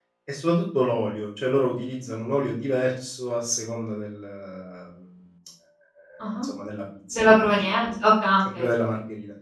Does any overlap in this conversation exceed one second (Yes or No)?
No